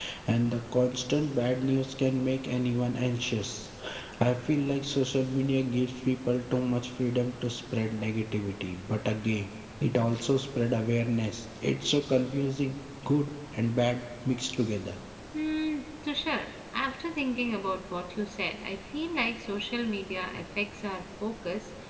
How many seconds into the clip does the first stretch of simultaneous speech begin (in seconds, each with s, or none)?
none